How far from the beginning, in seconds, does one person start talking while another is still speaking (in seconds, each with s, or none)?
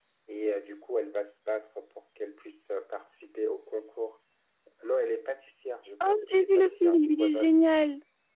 6.0 s